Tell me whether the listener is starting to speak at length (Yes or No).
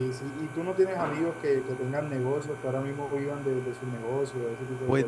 Yes